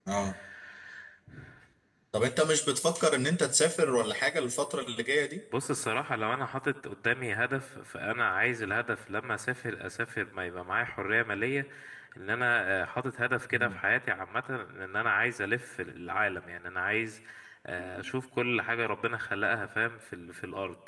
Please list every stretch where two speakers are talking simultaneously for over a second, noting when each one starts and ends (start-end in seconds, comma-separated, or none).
none